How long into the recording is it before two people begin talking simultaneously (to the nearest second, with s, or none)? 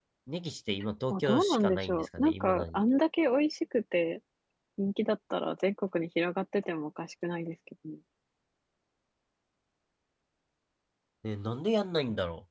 1 s